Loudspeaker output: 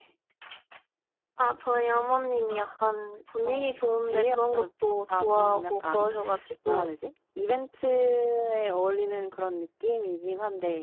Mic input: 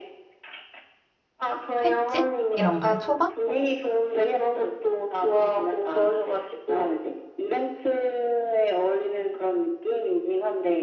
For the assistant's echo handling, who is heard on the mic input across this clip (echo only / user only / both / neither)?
both